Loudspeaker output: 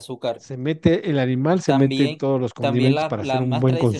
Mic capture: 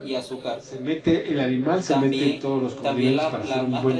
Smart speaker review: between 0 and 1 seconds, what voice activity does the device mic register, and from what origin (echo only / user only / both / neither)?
echo only